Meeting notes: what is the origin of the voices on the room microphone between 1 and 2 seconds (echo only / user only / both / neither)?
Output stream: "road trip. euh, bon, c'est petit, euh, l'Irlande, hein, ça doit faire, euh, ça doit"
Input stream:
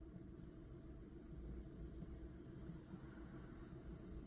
neither